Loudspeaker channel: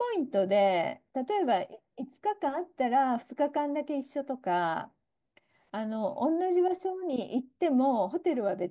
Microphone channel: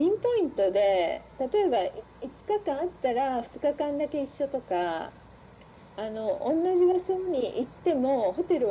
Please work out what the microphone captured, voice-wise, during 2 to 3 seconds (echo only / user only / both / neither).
echo only